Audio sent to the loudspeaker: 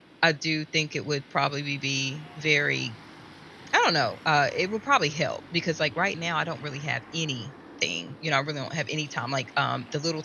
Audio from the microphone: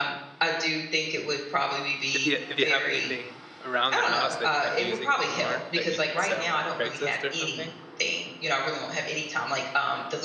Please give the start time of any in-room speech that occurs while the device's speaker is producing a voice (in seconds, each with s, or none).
2.1 s